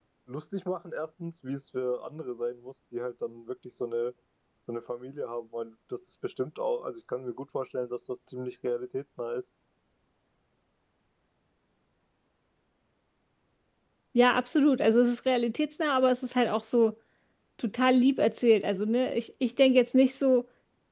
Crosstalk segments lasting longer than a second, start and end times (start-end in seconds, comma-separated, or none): none